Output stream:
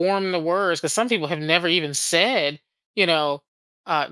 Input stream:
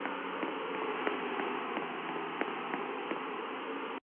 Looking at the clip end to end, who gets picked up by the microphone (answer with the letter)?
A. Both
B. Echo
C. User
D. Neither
D